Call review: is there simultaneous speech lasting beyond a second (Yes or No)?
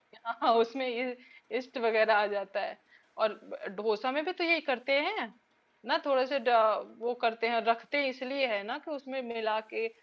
No